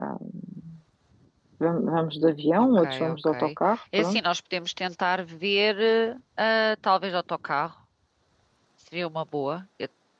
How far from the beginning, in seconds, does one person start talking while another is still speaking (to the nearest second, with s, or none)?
3 s